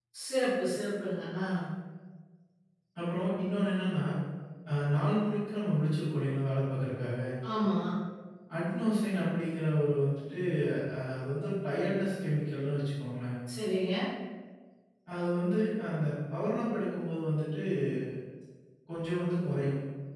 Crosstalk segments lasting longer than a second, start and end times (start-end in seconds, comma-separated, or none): none